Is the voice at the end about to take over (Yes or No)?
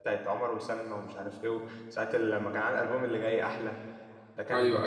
No